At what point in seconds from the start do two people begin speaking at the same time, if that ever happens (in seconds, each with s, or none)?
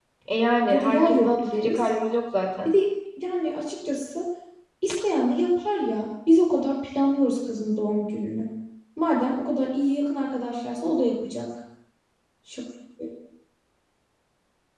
0.7 s